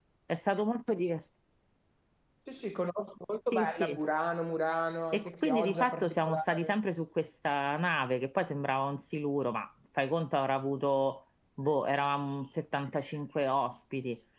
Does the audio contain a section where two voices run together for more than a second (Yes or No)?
Yes